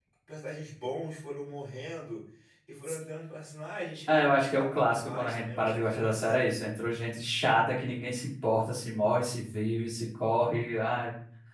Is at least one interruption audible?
Yes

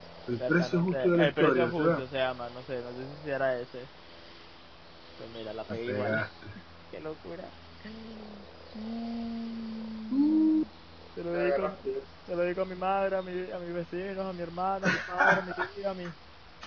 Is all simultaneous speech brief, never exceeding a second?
No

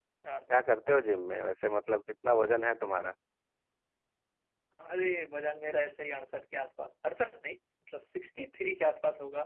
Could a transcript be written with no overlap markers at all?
Yes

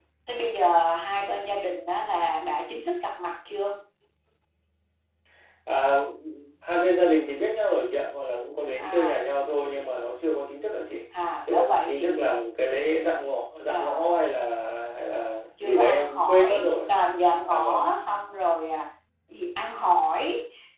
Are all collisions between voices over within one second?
No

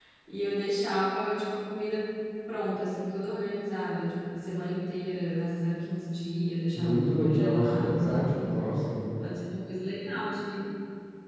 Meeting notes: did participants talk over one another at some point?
Yes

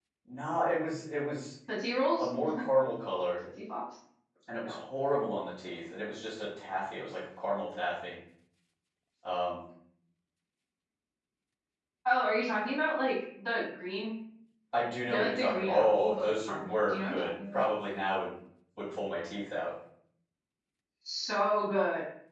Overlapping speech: Yes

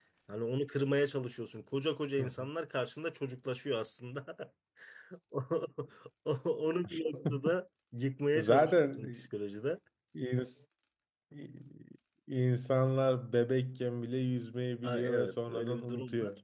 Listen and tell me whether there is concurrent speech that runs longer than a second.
Yes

